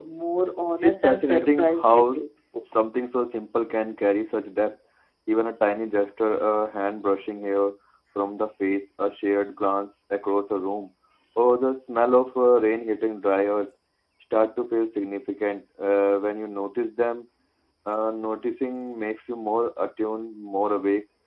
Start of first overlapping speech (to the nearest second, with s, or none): 1 s